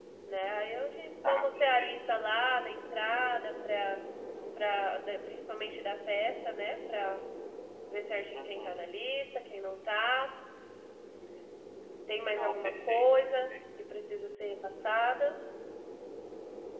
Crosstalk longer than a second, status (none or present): present